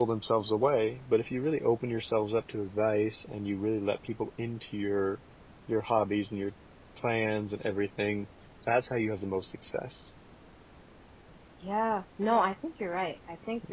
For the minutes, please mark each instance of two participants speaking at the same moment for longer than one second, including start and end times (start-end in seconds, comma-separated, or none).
none